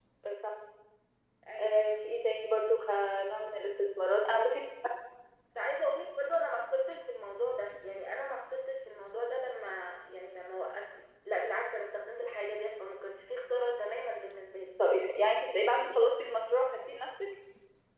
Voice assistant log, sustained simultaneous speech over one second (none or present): none